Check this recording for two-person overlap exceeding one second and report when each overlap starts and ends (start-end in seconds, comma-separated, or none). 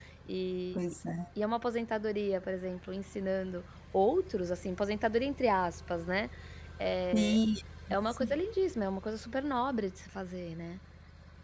none